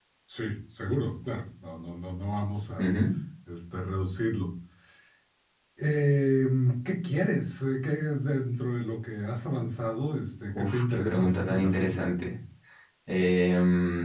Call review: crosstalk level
present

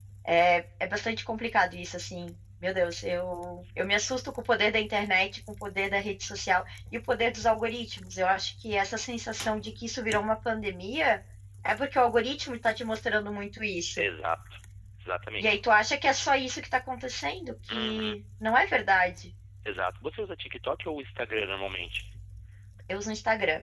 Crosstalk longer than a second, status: none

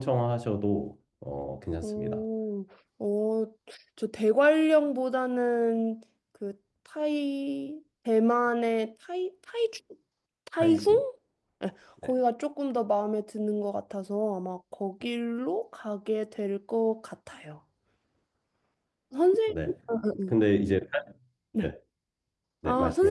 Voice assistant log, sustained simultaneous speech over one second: none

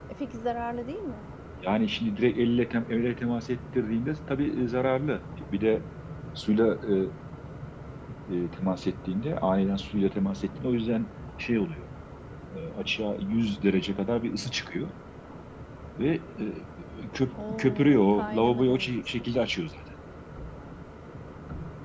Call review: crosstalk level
present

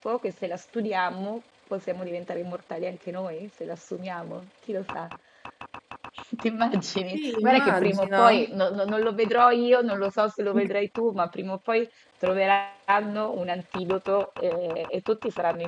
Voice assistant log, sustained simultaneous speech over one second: present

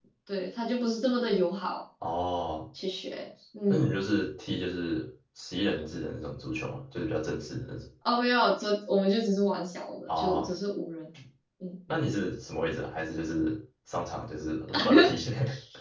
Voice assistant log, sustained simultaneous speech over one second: none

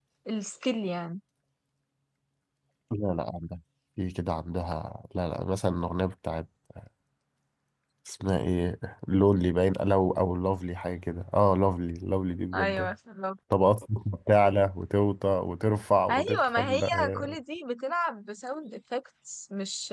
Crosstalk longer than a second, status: present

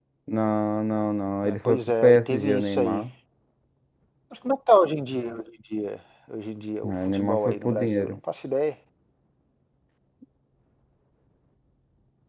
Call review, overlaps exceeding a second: present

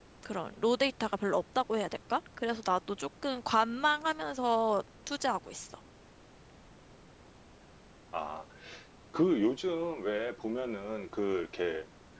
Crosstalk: none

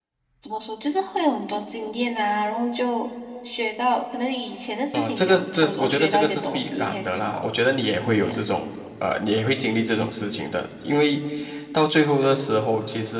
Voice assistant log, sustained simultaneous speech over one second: present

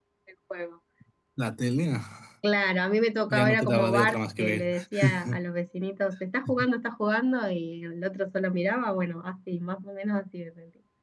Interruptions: present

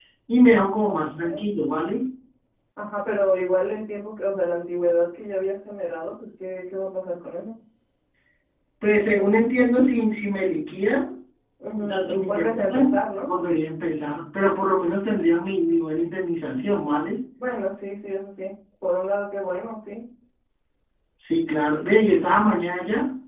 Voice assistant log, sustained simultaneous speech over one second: present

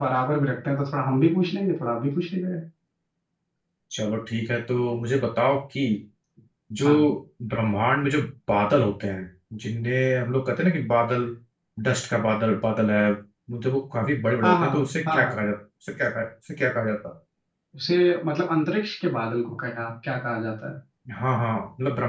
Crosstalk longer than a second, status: none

